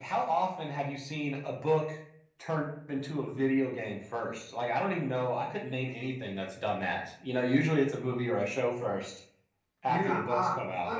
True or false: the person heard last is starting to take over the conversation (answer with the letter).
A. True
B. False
A